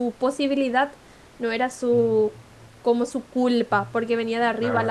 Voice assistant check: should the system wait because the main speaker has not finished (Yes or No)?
Yes